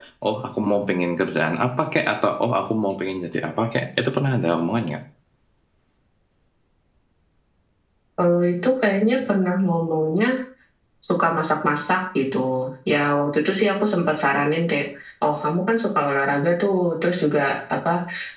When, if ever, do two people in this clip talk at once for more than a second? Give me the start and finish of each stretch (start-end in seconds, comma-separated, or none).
none